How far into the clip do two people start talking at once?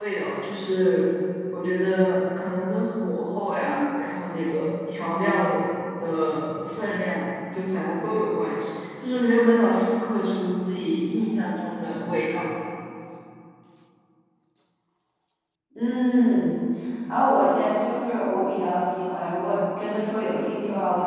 none

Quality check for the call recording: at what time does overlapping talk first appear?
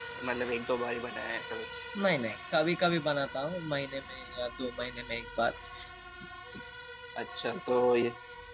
none

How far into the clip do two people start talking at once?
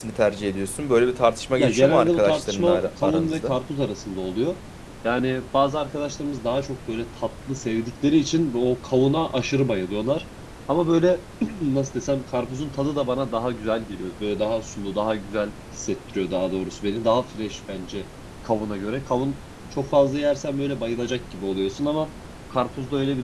1.6 s

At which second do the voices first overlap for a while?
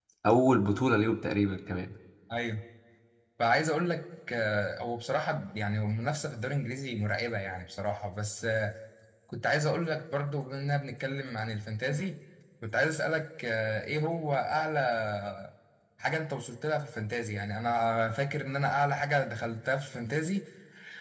none

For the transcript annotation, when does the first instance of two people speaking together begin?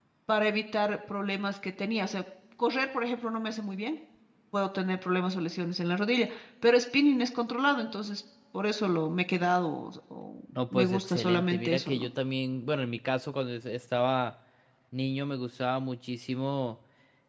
10.5 s

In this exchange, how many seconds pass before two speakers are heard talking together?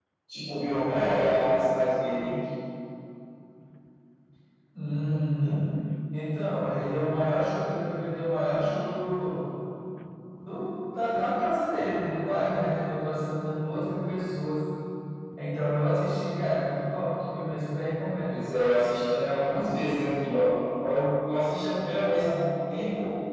none

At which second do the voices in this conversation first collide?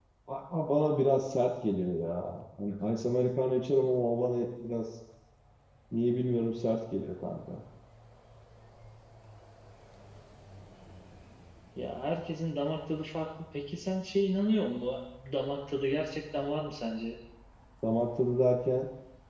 none

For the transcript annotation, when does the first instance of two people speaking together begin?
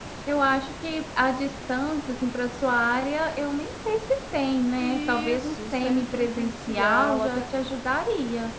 4.8 s

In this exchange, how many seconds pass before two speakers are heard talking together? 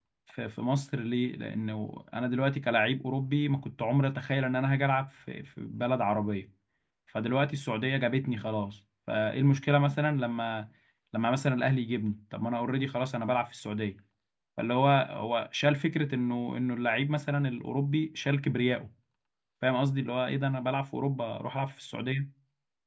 none

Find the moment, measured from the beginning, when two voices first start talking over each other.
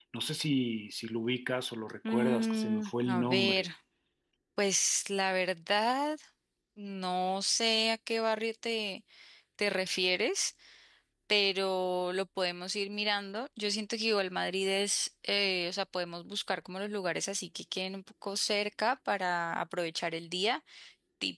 2.0 s

